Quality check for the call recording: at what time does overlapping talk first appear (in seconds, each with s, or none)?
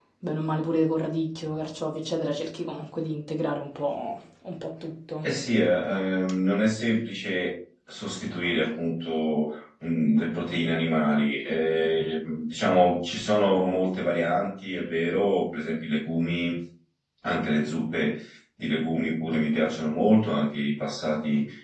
none